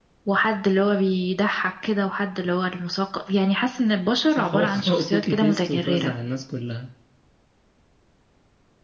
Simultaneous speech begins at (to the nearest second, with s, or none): 4 s